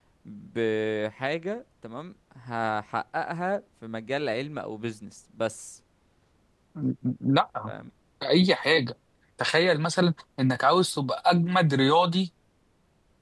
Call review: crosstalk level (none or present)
none